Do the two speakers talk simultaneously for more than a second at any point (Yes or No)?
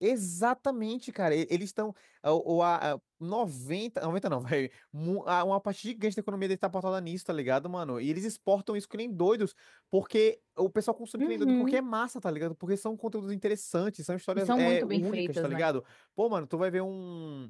Yes